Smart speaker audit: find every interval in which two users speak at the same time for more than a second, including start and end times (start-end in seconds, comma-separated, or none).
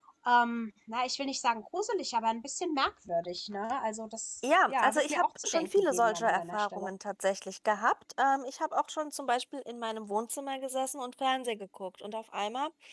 4.4-6.9